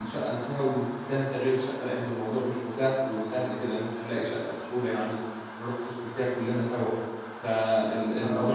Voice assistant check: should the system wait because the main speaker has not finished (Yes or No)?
Yes